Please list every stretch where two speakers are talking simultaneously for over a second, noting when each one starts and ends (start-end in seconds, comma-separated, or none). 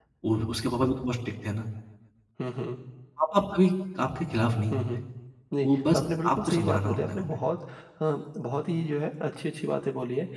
5.6-7.4